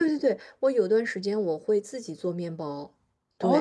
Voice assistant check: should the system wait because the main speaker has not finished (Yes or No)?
No